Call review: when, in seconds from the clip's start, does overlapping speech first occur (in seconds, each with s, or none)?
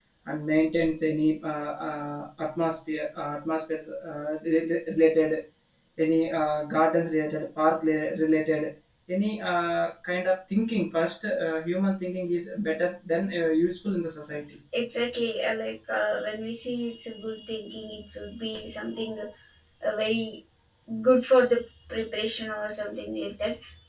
none